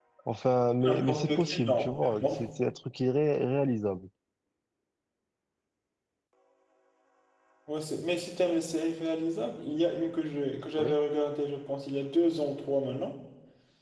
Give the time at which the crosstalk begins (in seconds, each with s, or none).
0.8 s